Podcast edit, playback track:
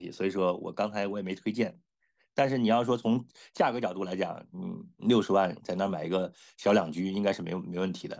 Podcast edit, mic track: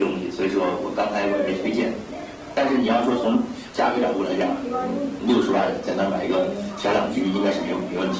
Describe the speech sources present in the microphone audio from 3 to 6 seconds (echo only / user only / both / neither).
both